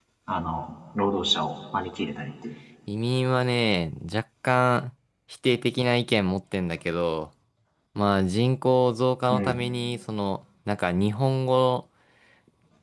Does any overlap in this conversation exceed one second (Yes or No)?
No